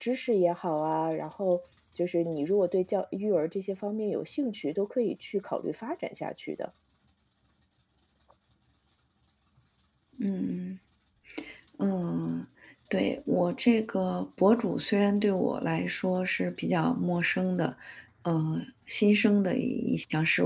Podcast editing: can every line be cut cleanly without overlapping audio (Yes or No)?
Yes